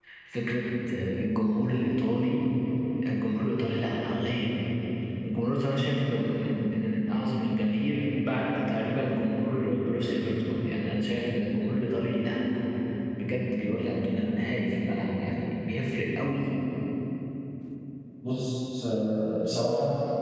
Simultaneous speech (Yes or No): No